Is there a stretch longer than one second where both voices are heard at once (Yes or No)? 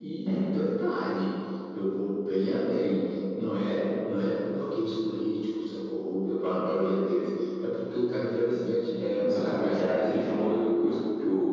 Yes